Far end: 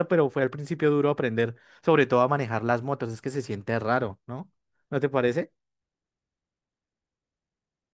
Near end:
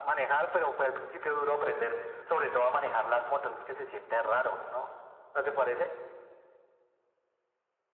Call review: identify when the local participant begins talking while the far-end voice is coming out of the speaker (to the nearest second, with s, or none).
none